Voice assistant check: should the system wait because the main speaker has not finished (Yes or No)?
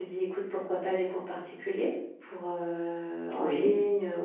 Yes